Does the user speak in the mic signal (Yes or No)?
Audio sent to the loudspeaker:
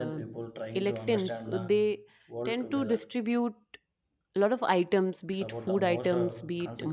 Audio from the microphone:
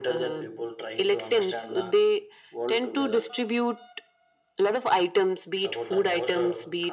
No